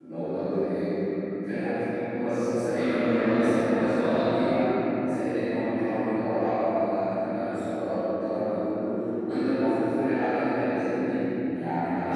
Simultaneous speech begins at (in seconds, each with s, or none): 2.7 s